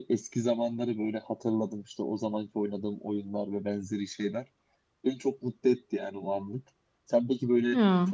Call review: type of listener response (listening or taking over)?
listening